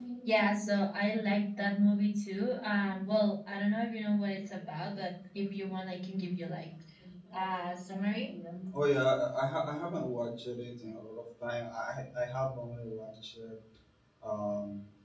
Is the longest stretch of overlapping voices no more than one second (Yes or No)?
Yes